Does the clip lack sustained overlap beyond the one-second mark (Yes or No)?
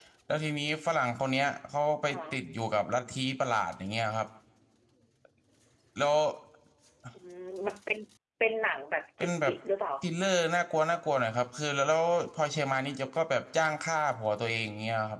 Yes